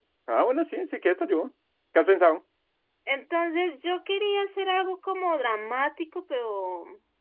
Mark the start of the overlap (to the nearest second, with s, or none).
none